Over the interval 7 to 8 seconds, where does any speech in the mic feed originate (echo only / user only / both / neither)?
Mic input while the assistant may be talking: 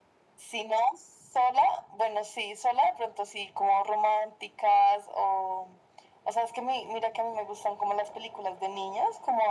echo only